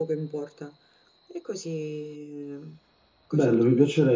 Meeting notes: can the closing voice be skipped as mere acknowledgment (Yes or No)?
No